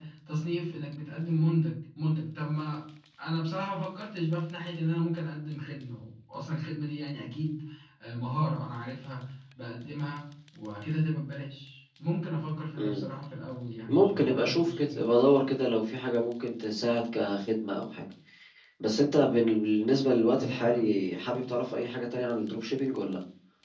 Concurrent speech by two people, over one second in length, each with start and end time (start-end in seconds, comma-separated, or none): 13.9-15.1